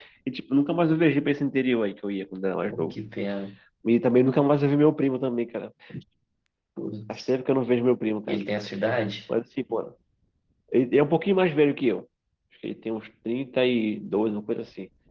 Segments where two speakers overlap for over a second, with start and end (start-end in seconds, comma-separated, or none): none